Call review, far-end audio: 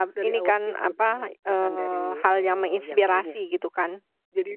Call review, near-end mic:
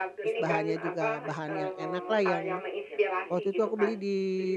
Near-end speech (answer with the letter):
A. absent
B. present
B